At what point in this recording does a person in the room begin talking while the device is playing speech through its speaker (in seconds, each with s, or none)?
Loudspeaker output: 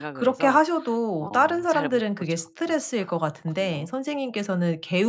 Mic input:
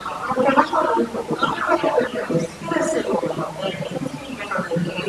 none